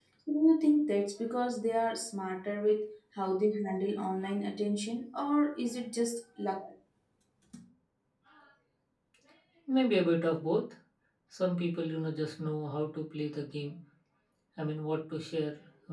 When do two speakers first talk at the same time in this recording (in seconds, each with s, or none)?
none